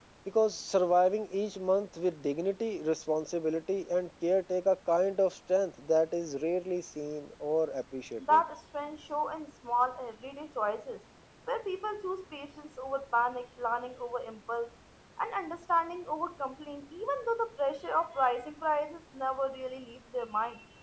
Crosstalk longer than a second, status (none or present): none